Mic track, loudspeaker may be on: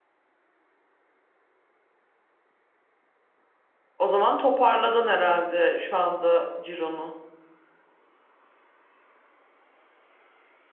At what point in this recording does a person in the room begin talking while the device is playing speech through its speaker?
4.0 s

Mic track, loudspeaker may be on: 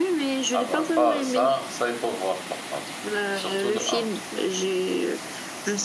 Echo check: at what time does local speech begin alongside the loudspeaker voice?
0.5 s

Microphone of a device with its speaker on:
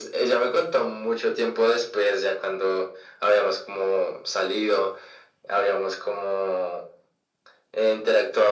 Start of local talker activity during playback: none

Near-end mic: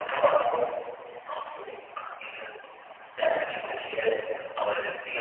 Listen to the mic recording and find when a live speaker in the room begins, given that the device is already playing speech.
none

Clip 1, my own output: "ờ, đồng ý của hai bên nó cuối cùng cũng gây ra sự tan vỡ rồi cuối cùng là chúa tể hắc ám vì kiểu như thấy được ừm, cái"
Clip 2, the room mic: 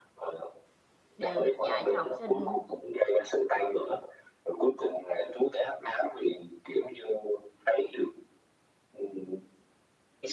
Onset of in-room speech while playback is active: 1.2 s

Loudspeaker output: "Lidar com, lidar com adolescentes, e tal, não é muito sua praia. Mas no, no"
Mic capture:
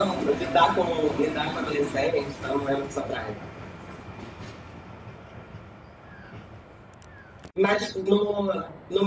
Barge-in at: none

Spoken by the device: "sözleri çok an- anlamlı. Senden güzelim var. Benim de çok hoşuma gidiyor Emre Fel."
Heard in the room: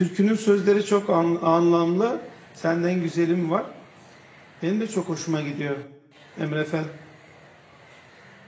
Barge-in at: none

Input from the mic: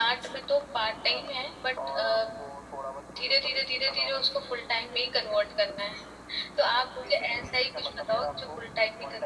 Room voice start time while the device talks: none

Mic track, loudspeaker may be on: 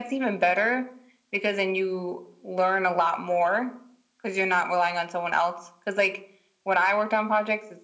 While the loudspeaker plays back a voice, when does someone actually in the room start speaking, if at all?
none

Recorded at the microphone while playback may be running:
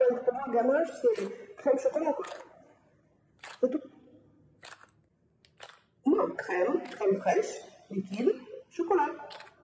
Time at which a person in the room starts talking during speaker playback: none

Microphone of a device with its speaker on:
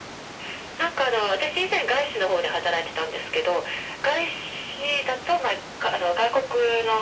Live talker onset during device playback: none

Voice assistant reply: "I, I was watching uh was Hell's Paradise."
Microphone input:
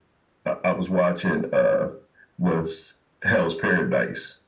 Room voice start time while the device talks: none

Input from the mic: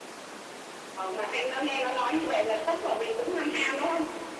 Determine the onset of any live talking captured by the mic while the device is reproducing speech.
none

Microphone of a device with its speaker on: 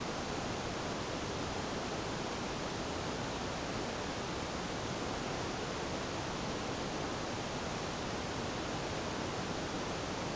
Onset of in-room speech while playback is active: none

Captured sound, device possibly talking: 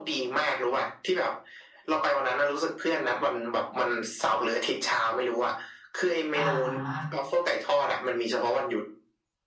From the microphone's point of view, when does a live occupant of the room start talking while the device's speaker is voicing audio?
6.3 s

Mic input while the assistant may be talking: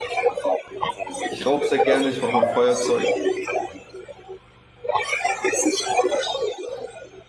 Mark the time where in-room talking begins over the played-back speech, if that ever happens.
1.3 s

